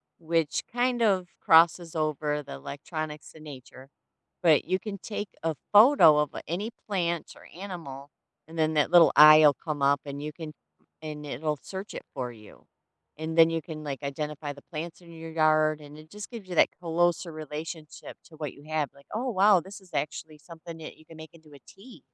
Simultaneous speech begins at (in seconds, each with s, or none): none